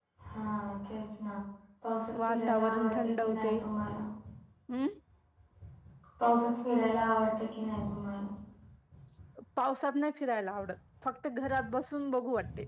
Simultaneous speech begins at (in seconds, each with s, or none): 2.3 s